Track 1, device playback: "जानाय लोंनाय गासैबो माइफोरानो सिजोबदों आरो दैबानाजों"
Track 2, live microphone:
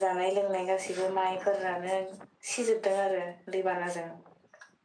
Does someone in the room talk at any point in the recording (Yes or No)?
No